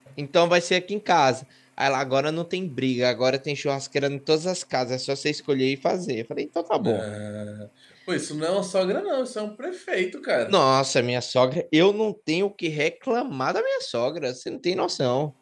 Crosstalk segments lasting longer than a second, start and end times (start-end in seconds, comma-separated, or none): none